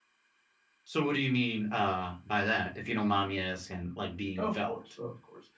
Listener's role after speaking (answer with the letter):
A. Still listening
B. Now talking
B